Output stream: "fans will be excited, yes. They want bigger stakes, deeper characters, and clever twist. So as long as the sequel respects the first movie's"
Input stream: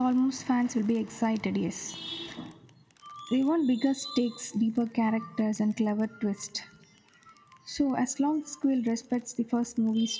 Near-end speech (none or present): none